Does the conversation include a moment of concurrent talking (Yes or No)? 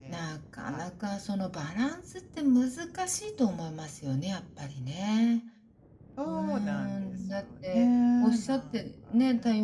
Yes